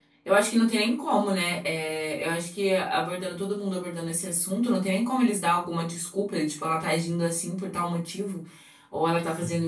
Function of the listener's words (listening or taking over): listening